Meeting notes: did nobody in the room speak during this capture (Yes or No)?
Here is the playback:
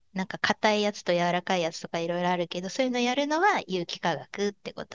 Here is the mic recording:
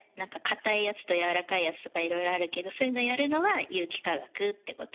Yes